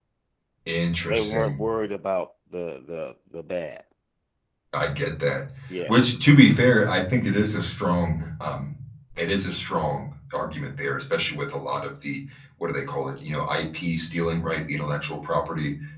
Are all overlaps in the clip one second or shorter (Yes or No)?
Yes